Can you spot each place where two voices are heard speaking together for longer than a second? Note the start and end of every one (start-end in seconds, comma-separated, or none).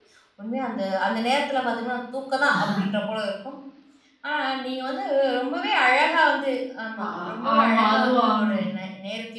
7.1-8.6